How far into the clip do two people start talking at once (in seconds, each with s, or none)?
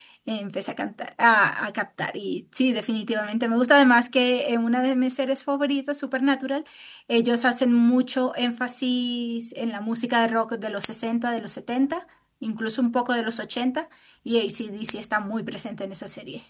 none